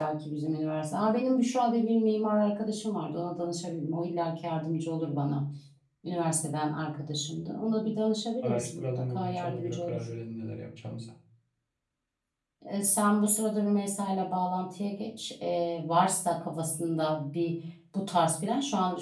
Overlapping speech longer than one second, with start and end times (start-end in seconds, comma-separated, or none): 8.4-10.0